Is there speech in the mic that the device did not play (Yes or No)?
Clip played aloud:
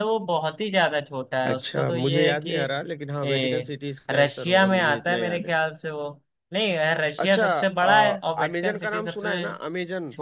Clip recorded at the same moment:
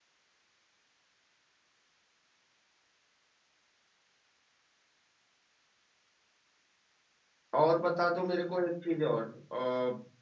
Yes